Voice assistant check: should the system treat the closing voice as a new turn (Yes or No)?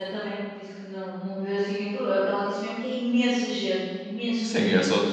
Yes